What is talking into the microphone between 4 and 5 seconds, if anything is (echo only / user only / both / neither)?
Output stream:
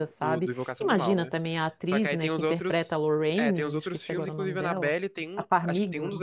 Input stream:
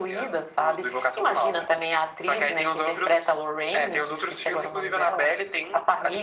echo only